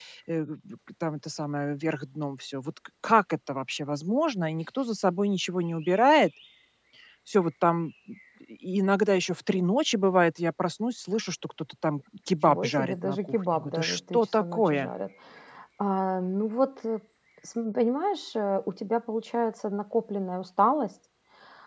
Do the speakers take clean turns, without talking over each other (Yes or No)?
No